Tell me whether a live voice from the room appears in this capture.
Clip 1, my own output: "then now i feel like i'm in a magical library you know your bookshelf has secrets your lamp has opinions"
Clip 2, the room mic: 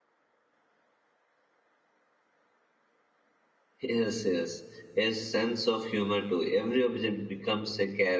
Yes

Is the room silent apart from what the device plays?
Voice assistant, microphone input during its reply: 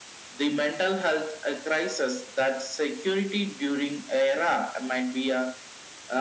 Yes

